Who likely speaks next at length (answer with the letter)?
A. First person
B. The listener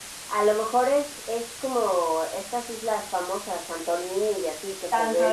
B